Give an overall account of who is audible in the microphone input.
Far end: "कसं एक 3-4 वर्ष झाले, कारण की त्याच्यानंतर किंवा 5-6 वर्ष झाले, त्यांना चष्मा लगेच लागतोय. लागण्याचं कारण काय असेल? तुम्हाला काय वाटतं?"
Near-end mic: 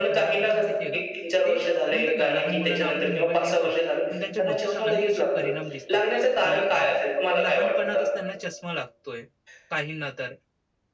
both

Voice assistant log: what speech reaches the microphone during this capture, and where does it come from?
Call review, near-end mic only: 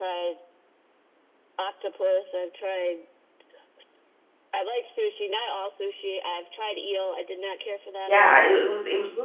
both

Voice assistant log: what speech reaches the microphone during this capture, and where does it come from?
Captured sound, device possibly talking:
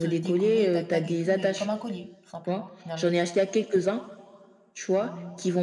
both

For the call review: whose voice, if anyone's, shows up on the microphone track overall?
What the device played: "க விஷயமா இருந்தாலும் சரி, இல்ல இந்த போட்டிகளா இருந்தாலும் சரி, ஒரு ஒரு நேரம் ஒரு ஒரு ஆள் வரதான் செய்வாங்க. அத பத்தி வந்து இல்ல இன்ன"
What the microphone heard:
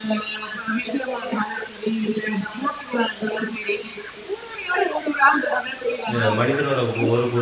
both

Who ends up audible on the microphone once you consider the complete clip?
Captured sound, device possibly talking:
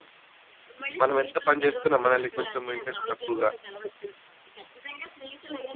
both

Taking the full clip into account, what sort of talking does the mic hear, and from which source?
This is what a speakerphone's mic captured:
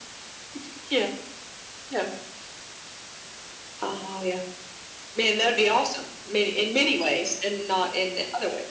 echo only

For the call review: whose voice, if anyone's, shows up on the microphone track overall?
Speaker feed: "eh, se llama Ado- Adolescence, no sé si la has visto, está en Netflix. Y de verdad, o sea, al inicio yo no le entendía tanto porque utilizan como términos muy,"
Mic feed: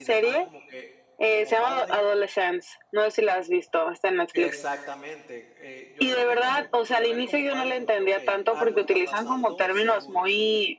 both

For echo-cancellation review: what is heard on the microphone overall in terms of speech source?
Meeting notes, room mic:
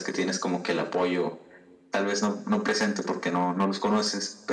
echo only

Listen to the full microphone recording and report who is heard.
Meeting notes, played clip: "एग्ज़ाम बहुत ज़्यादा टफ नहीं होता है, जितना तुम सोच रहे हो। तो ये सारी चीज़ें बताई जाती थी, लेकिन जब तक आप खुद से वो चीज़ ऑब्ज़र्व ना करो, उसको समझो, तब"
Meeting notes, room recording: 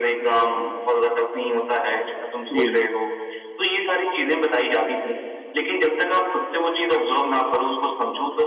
both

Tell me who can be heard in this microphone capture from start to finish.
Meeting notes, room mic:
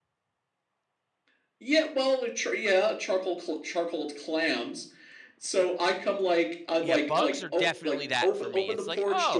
both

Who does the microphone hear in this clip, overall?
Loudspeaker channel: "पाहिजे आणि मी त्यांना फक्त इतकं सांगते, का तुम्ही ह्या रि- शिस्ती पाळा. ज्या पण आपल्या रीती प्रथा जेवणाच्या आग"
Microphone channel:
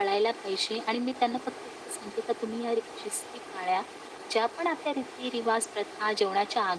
echo only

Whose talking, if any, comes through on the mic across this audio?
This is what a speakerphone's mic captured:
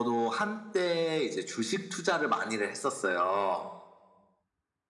echo only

